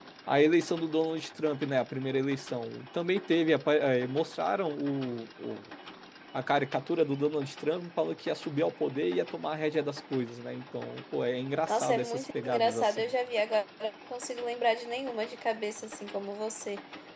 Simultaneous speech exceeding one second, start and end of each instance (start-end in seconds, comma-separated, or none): 11.7-13.1